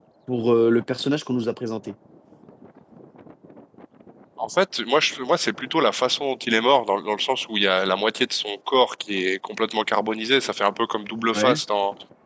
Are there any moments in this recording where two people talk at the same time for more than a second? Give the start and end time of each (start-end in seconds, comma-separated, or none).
none